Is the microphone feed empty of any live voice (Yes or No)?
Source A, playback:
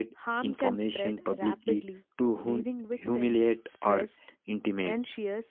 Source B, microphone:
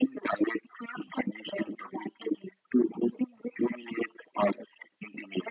Yes